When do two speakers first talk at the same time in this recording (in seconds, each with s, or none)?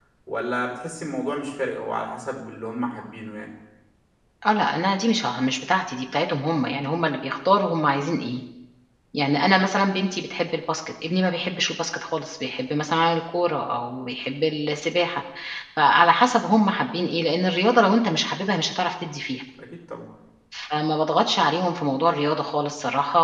none